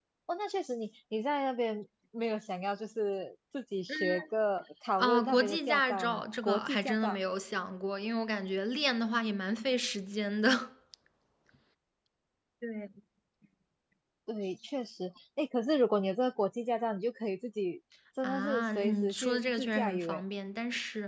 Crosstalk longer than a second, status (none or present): present